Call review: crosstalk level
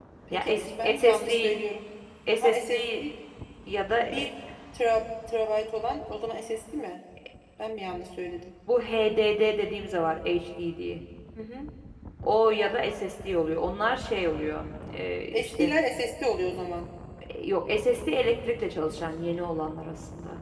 present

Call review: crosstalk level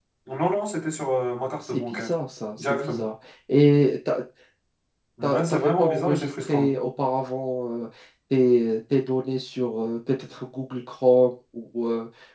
present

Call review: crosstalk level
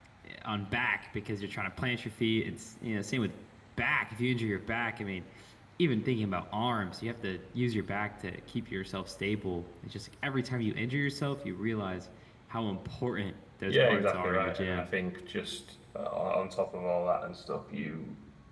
present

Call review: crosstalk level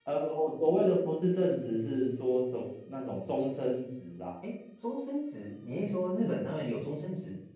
none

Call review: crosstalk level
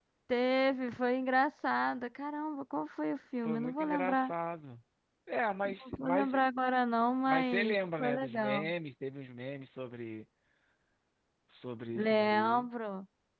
present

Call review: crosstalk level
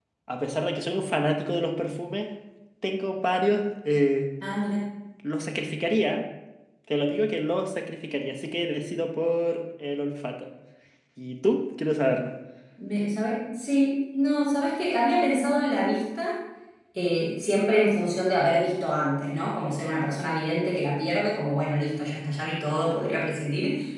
none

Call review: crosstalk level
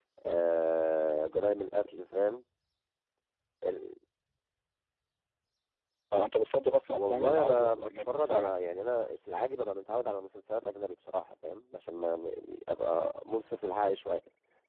present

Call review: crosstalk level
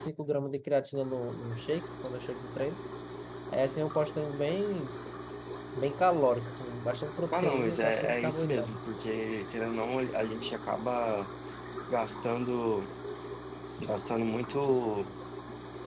present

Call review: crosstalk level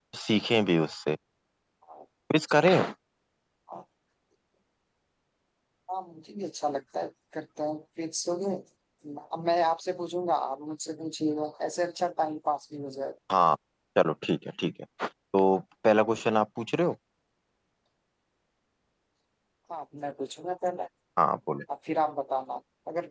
none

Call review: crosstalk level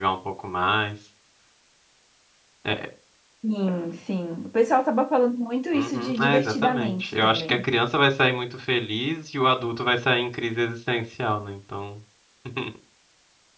present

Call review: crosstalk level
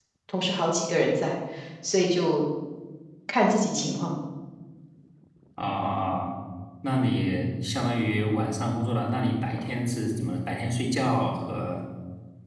none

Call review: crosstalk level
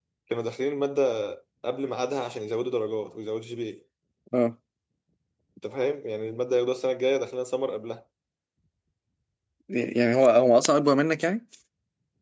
none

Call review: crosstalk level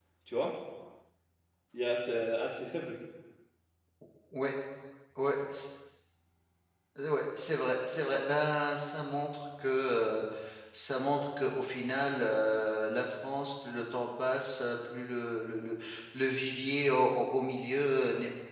none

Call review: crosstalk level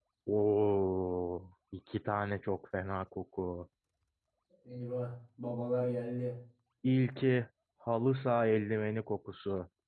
none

